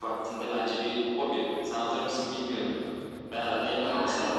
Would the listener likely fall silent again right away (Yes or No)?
No